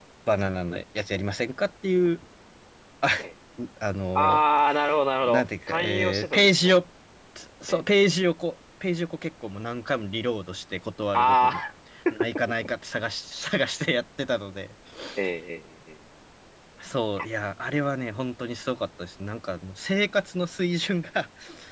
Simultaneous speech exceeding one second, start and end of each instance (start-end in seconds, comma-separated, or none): 5.2-6.7